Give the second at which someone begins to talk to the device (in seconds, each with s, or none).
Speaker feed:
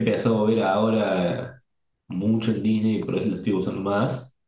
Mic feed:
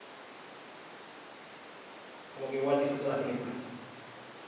2.3 s